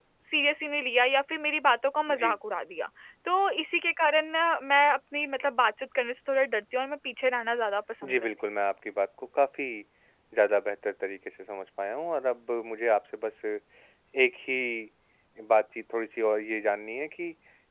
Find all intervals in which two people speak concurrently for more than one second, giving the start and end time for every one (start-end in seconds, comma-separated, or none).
none